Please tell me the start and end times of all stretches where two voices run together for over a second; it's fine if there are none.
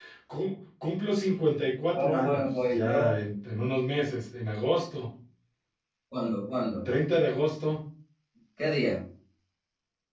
1.9-3.1

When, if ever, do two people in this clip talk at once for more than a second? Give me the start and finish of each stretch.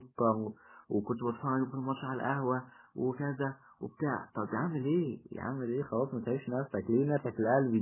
none

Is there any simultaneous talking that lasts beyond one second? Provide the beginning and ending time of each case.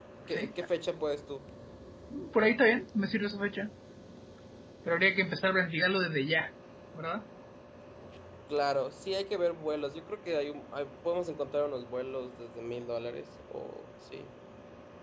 none

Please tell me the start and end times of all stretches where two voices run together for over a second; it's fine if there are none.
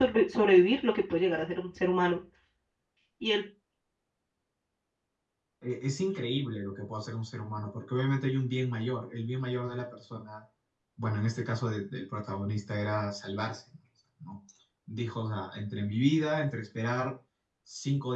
none

